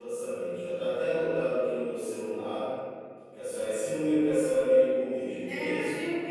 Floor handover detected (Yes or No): Yes